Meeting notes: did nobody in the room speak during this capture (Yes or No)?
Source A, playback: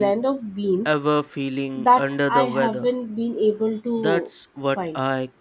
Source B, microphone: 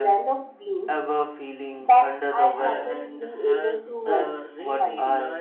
No